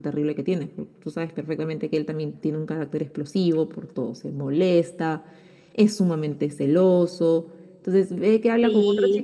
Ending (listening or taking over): listening